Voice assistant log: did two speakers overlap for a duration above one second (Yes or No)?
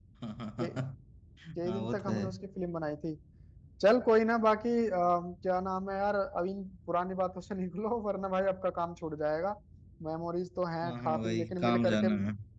Yes